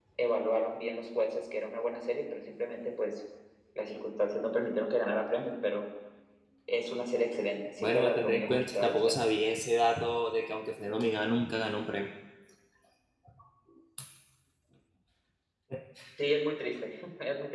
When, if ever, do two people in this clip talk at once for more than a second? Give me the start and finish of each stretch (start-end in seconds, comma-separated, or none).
7.8-9.2